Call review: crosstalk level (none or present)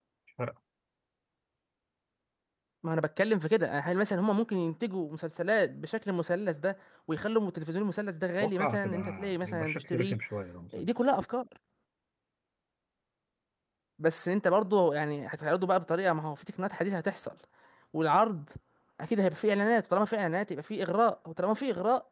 present